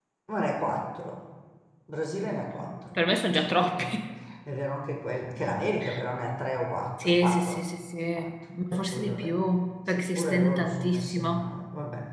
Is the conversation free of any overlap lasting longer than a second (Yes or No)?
No